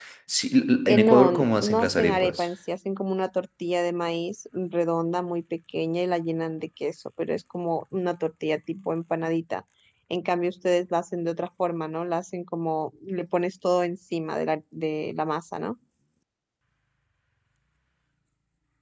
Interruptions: present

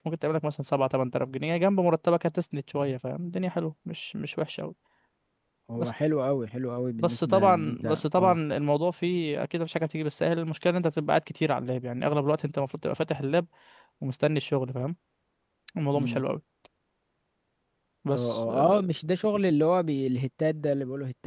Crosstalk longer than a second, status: present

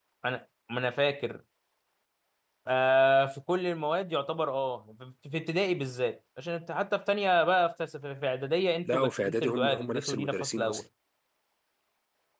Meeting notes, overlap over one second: present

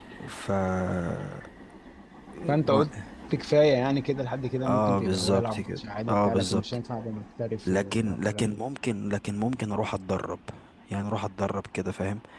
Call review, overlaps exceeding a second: present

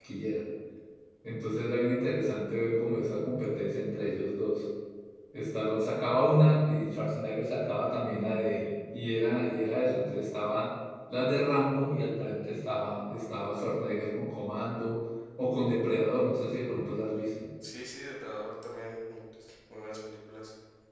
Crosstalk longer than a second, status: none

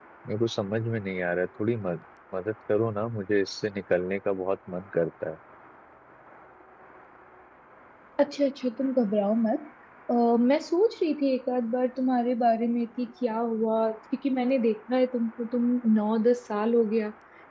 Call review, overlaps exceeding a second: none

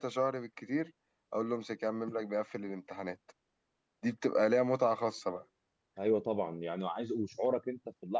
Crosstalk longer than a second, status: none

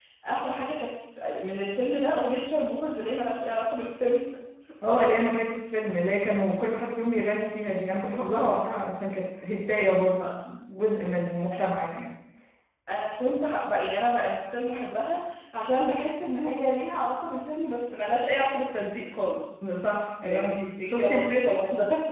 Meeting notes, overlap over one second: present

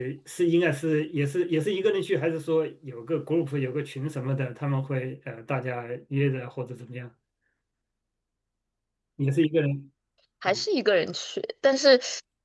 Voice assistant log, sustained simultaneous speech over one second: none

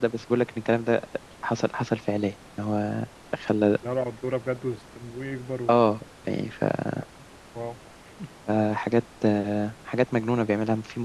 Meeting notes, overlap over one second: none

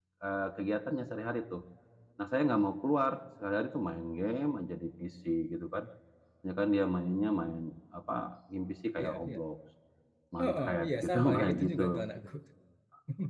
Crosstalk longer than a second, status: present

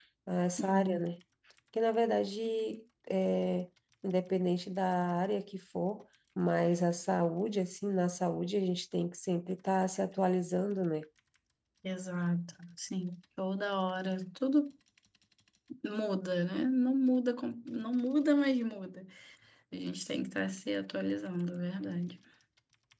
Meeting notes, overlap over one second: none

